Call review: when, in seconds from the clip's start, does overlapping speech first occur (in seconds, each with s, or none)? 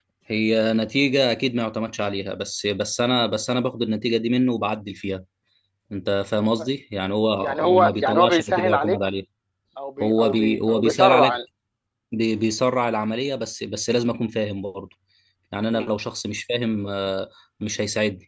7.4 s